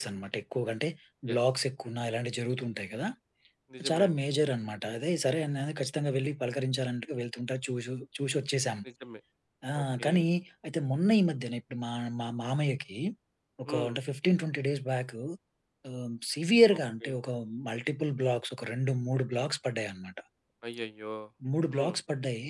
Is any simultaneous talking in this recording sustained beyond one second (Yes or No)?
No